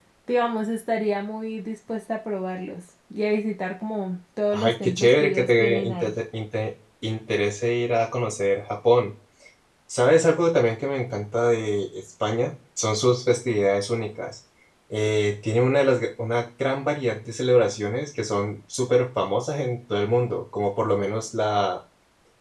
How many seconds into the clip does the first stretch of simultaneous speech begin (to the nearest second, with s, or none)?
5 s